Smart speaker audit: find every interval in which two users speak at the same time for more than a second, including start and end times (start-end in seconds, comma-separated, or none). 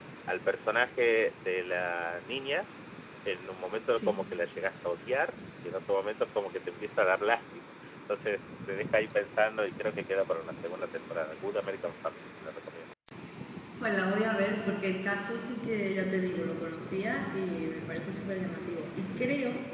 none